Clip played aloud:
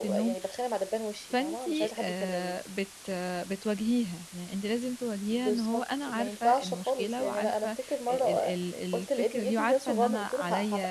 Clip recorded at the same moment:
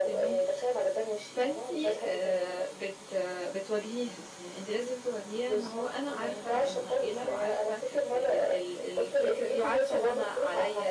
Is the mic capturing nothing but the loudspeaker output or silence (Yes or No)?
Yes